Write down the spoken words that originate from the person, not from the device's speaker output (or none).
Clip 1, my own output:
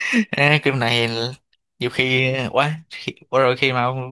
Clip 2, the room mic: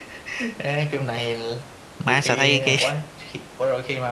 Má sao thấy cái